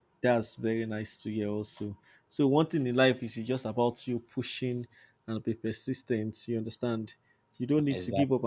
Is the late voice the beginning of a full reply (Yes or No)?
No